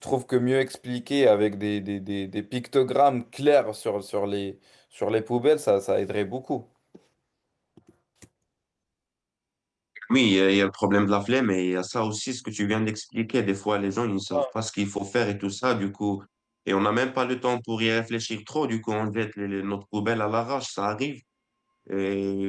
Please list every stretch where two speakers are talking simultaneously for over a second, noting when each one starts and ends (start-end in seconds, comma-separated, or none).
none